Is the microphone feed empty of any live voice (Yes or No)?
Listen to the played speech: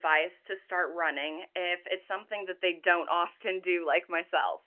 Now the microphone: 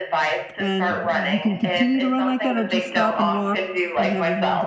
No